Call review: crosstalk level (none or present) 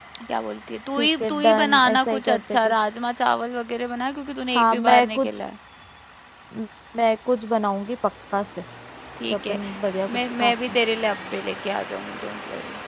present